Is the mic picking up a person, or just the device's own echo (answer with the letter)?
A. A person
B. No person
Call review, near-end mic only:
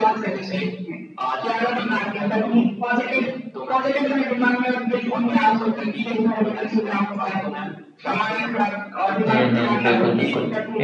A